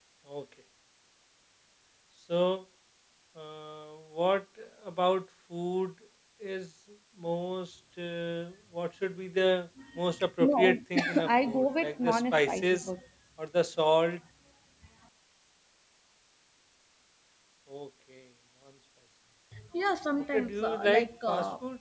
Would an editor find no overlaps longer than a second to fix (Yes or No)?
No